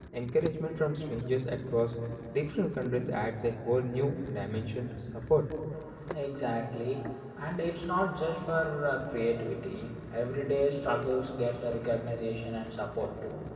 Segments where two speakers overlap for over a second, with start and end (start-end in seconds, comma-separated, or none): none